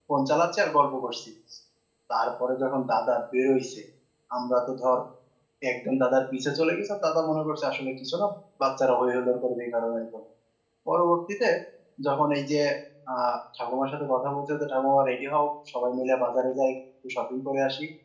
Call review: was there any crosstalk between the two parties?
No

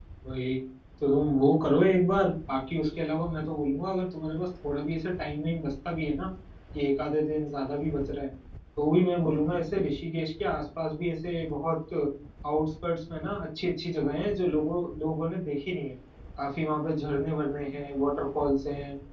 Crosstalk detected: No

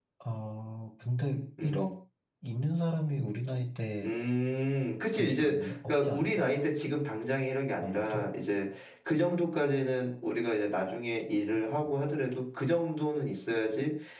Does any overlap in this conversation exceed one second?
Yes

